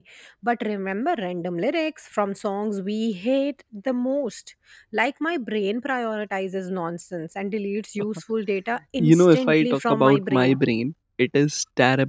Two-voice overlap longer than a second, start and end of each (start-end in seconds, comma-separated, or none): 9.0-10.6